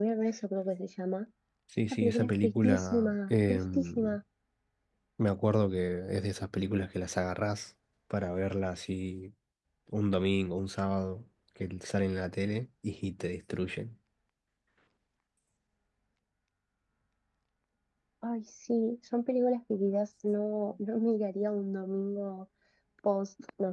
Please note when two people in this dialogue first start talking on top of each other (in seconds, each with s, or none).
1.9 s